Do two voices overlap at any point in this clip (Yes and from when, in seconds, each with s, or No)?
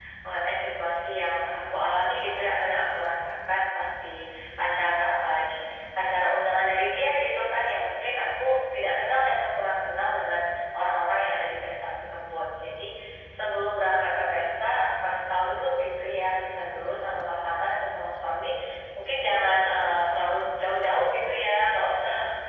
No